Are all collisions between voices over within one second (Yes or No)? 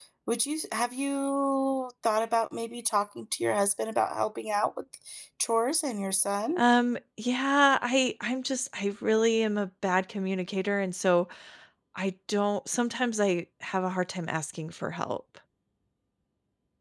Yes